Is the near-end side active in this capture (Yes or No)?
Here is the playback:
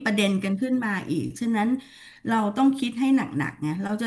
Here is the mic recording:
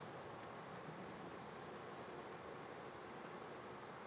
No